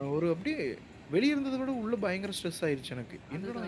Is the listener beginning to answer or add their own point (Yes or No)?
Yes